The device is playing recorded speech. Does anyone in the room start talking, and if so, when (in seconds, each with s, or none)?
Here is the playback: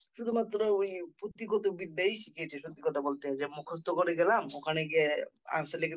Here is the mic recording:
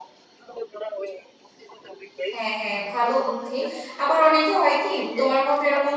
2.4 s